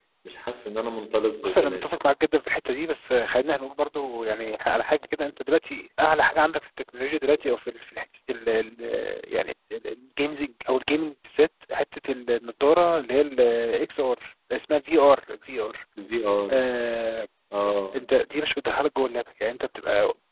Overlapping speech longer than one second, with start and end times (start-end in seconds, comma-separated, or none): none